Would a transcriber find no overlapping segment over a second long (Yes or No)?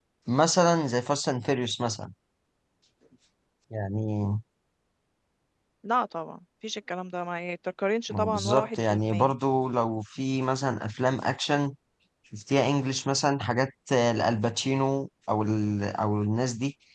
No